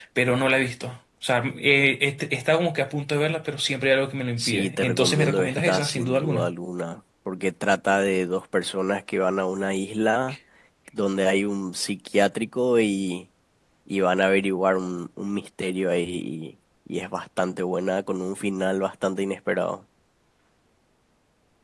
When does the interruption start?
4 s

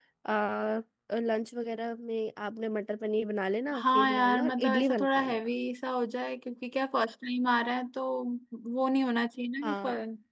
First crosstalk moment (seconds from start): 4 s

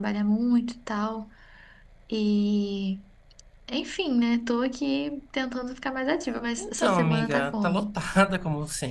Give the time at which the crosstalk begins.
7 s

